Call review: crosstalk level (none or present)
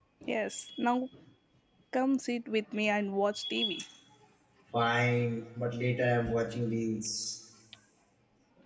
none